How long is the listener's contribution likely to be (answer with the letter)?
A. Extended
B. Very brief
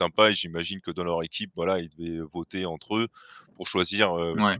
B